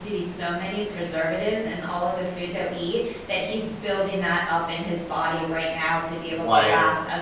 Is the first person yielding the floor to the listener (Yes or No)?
No